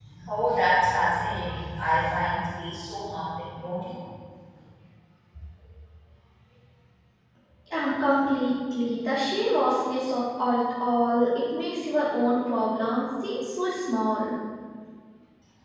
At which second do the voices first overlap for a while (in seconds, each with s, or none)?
none